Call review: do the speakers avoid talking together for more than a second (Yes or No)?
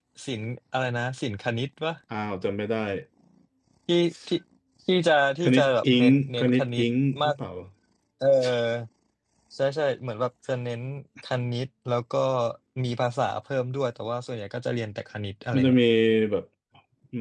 No